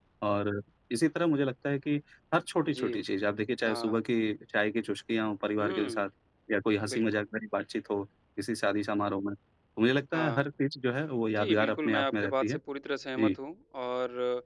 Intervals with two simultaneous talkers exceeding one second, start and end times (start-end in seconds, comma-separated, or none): 11.4-12.6